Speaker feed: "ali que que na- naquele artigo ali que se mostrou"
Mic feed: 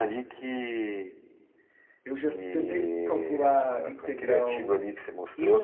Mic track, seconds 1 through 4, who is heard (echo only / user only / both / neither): both